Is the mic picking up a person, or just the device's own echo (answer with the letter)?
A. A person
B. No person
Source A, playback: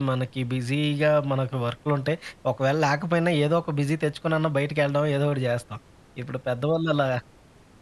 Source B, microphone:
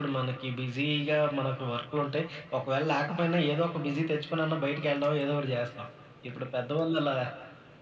B